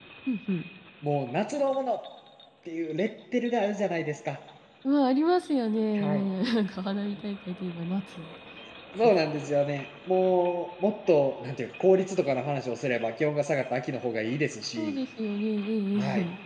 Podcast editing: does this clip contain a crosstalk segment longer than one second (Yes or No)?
No